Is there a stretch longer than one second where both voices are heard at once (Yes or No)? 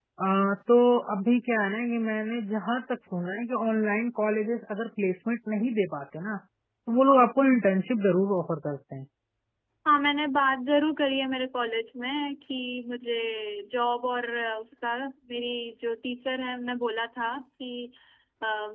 No